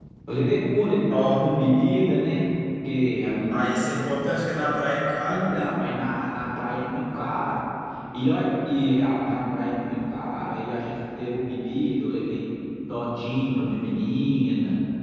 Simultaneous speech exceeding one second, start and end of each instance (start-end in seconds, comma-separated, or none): none